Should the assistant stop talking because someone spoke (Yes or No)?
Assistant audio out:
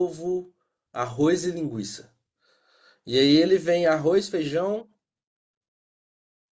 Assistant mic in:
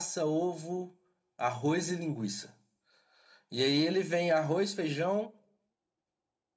No